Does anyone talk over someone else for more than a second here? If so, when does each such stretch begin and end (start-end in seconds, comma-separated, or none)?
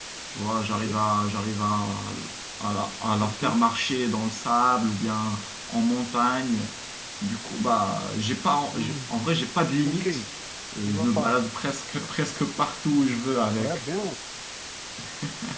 none